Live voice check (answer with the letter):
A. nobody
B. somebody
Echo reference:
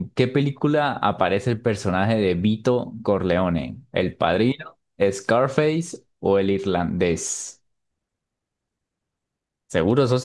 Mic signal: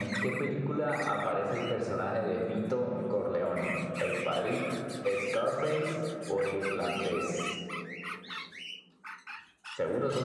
A